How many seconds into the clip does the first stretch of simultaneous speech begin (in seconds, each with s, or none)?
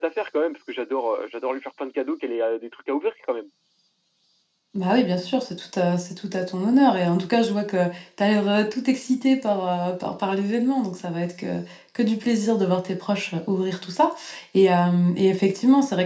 none